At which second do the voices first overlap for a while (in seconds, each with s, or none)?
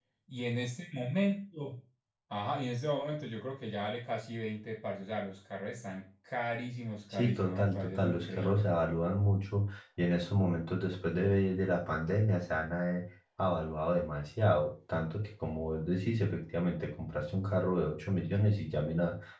7.1 s